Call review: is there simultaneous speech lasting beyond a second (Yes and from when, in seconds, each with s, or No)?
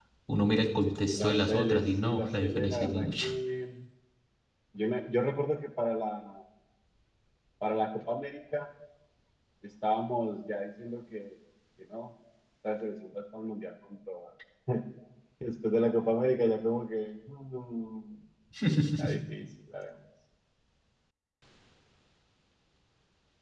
Yes, from 1.1 s